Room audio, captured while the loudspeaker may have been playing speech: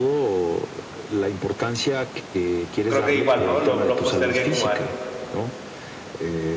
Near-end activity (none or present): present